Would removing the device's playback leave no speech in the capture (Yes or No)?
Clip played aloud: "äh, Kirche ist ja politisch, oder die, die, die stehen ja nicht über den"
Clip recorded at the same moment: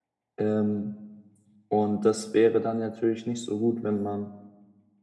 No